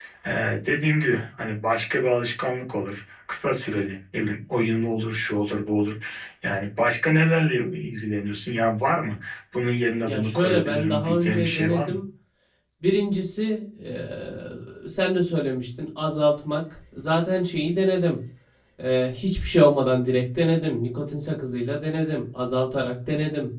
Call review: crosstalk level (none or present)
present